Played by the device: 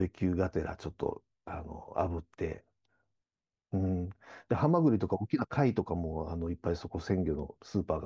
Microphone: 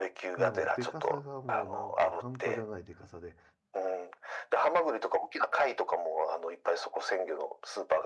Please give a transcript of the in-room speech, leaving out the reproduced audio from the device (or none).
ただもう、でかさがもうなんか半端じゃないでかさで、